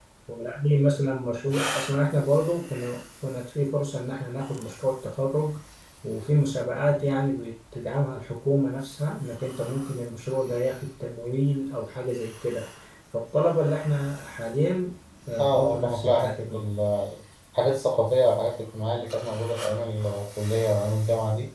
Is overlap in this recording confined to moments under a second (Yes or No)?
No